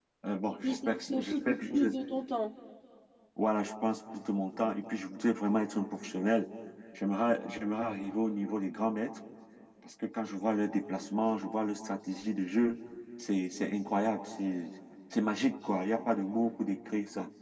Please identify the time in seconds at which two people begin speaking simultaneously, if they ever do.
0.6 s

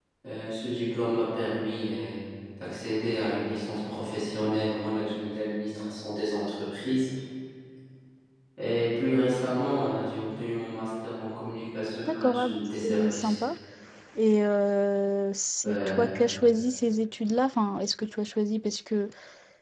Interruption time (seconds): 12.0 s

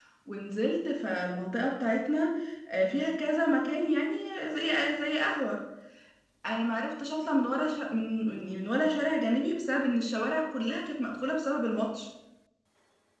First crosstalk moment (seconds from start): none

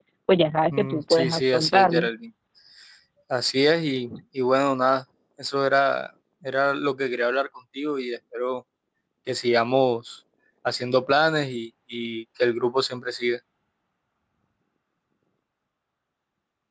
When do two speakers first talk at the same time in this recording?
0.7 s

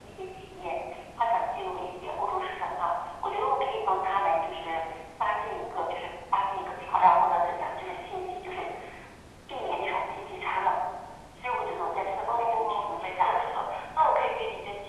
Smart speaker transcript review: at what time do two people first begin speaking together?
12.3 s

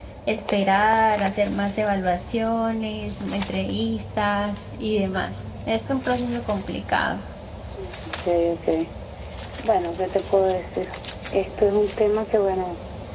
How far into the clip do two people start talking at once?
none

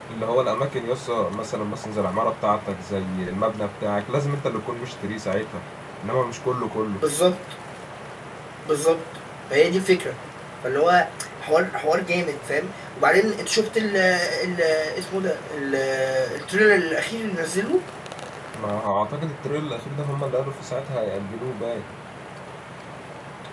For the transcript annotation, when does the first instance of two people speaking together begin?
none

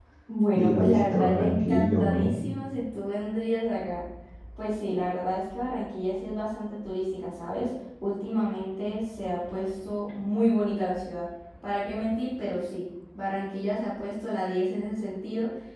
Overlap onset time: 0.5 s

